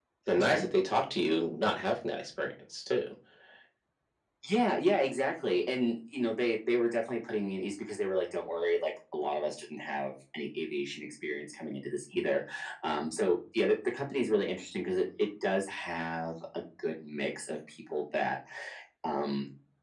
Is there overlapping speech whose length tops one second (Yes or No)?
No